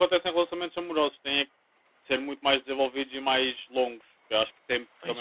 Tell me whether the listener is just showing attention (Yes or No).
Yes